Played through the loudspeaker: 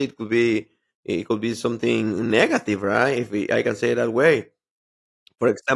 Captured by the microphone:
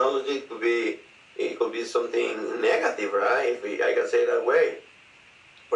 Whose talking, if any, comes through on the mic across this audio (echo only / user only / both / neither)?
echo only